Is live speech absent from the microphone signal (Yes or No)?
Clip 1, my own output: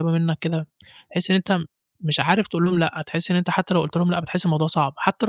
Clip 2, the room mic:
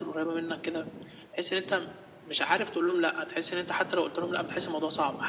Yes